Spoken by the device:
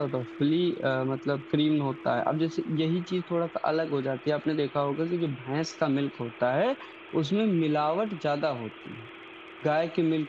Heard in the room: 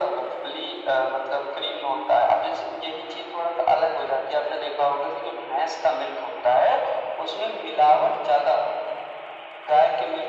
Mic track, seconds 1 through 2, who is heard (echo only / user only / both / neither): echo only